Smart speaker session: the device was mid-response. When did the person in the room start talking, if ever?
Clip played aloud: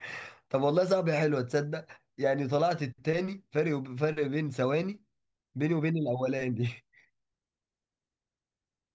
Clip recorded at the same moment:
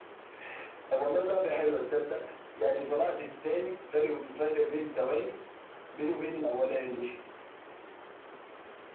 none

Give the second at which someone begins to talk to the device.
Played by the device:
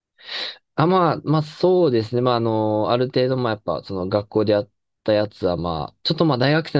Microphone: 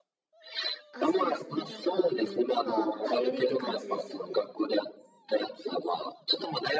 1 s

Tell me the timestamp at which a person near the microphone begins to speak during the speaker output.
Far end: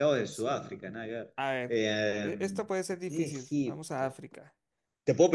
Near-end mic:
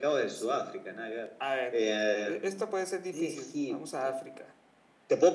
none

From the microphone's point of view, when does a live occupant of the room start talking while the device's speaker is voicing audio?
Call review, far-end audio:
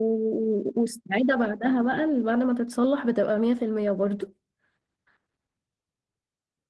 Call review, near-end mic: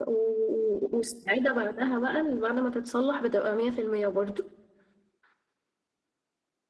none

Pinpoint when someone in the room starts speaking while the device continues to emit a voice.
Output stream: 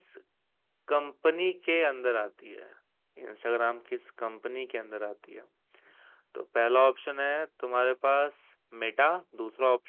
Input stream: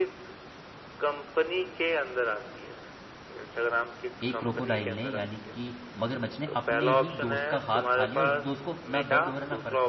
4 s

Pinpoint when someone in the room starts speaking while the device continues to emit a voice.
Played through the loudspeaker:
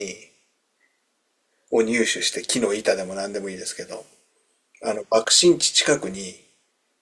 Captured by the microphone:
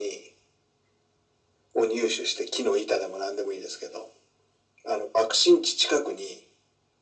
none

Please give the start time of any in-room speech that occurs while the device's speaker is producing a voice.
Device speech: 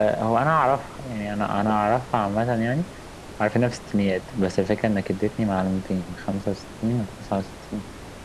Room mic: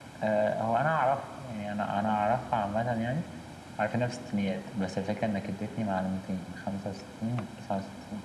none

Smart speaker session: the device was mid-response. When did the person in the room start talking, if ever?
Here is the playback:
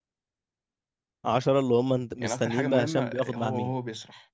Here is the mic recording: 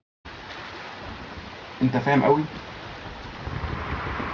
2 s

